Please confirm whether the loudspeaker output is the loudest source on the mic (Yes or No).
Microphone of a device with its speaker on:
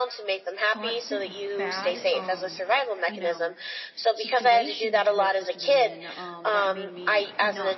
Yes